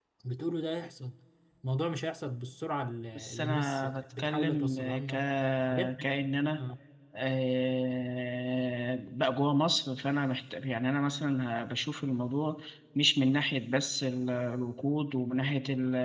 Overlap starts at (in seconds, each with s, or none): 3.2 s